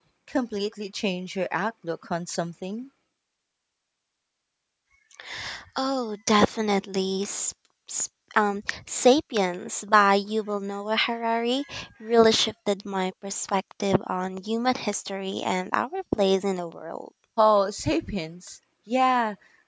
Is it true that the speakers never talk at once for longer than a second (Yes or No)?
Yes